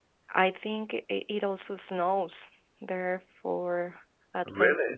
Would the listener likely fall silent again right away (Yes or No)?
Yes